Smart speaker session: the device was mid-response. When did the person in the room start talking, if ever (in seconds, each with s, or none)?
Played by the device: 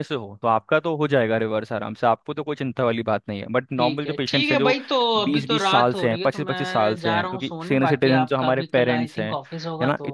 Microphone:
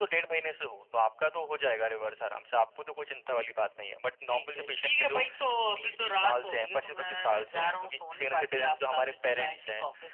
none